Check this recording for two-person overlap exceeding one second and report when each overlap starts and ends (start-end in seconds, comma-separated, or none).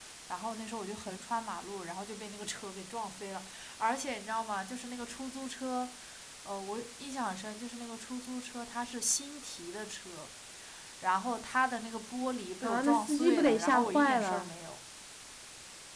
12.6-14.5